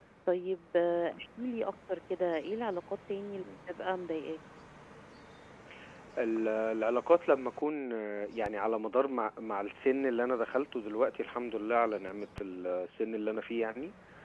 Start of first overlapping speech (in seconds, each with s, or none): none